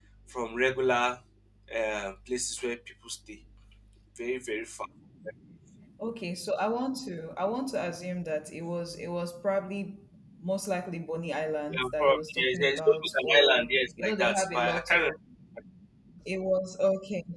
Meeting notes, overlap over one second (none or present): present